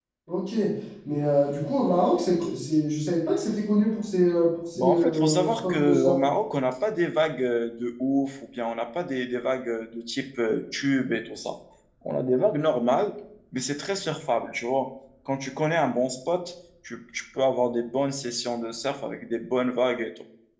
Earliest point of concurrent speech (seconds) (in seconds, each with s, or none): 4.8 s